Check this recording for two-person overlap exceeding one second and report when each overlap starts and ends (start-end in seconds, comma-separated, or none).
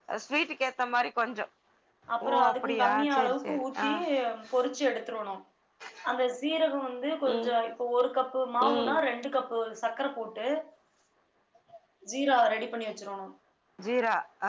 2.2-3.9